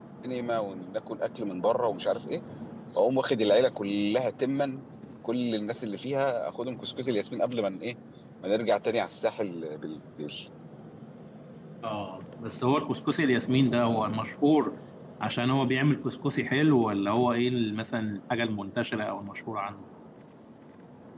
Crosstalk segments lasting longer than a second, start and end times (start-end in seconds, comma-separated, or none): none